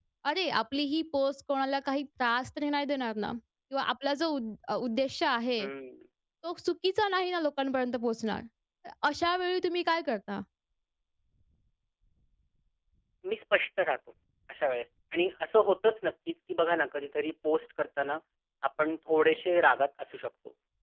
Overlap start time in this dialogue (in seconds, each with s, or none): none